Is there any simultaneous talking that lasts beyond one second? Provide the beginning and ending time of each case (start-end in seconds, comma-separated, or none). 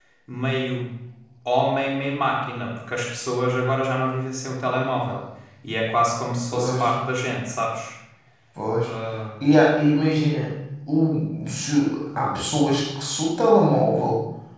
none